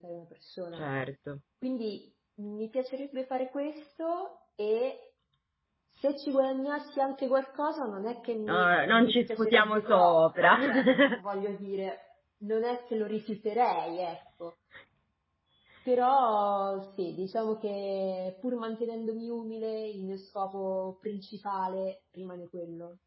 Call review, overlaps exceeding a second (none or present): present